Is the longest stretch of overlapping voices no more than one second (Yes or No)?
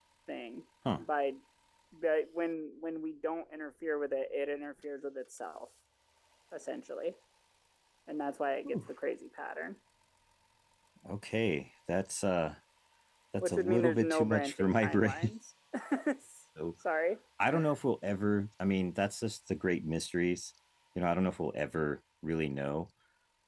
No